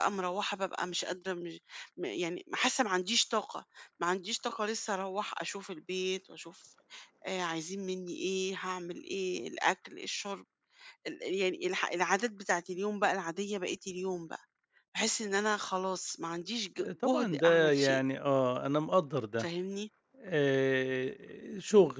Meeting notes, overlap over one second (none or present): present